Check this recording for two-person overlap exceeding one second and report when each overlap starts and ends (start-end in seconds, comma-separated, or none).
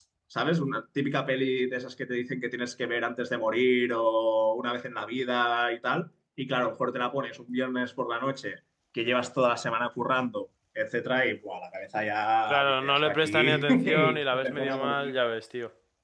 12.5-15.1